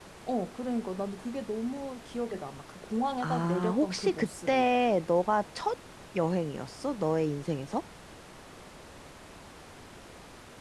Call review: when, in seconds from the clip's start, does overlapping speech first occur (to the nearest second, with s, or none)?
3 s